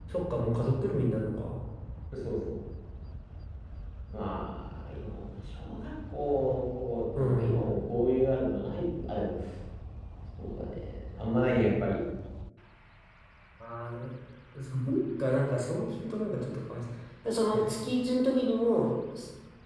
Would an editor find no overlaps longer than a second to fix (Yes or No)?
Yes